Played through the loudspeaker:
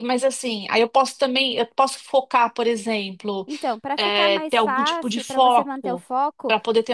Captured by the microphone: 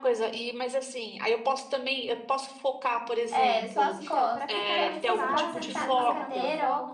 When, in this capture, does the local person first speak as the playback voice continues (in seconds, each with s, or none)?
3.3 s